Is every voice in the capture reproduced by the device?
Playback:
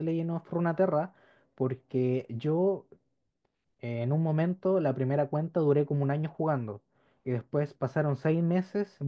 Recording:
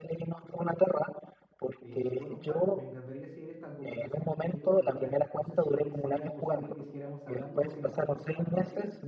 No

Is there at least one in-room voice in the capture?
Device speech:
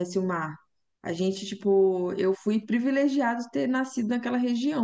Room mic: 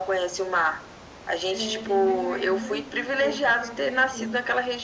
Yes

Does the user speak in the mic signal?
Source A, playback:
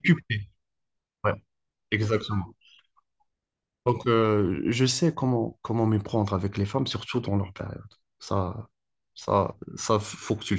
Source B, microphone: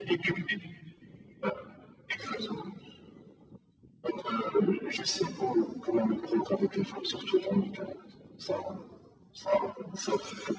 No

